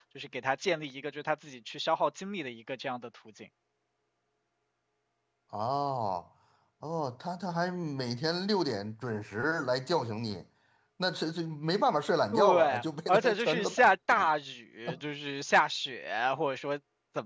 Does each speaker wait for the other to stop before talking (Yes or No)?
No